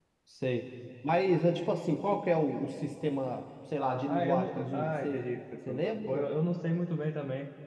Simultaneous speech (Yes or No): Yes